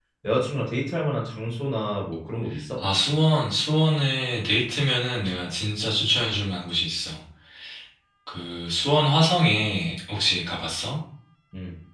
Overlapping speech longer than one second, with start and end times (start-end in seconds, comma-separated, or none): none